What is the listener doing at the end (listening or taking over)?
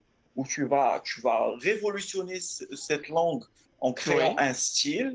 listening